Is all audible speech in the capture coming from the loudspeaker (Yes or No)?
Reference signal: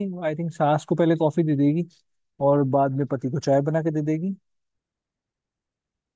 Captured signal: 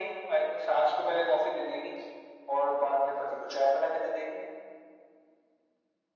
Yes